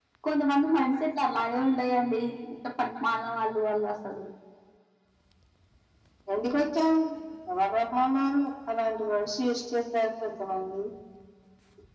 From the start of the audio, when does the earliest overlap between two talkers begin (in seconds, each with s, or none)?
none